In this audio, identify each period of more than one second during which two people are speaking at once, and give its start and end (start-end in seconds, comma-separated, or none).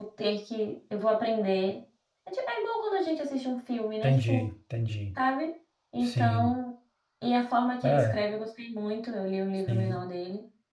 none